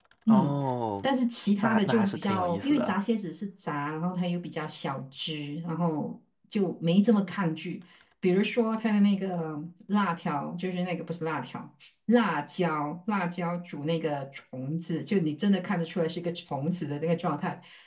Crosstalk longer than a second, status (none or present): present